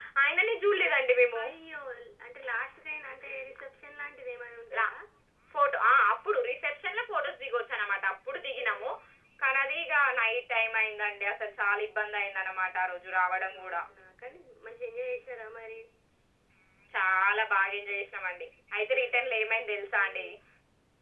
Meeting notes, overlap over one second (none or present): none